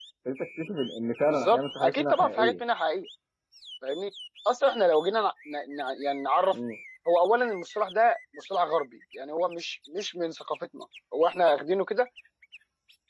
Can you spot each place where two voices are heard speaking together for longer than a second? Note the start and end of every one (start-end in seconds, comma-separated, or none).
1.2-2.5